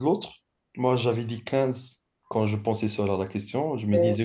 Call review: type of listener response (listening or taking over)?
listening